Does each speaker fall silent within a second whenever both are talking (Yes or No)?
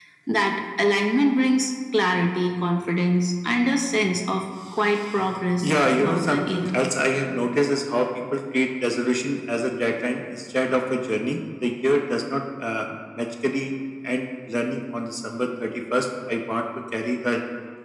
No